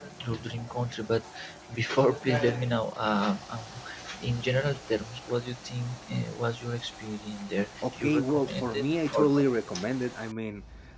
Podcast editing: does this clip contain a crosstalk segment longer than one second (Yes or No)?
Yes